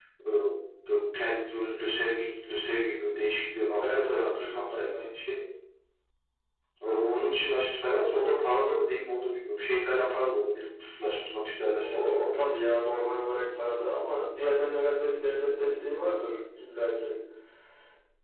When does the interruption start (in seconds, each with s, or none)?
3.8 s